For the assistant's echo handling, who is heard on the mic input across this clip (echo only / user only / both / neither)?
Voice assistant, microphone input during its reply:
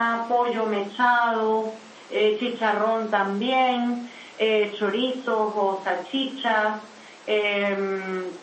echo only